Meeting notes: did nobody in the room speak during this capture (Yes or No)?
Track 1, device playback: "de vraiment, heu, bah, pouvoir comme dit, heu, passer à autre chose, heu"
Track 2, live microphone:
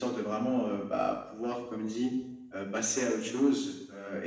Yes